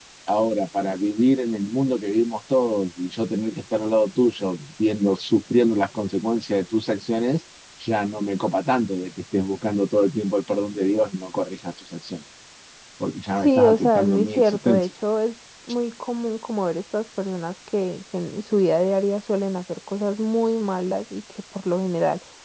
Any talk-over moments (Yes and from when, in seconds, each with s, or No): Yes, from 13.4 s